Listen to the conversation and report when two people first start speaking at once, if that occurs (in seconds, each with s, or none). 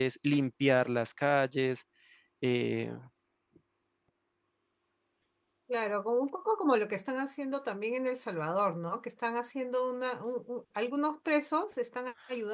none